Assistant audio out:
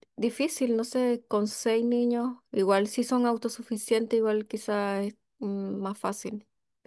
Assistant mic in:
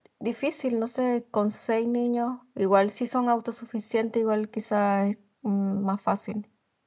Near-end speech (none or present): none